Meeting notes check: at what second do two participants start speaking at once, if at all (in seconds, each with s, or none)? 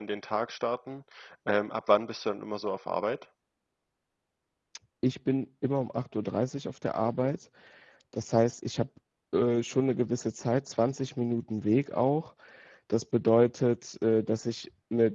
none